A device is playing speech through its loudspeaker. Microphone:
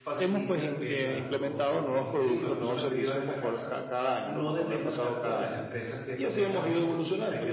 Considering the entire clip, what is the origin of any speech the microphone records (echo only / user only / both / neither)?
both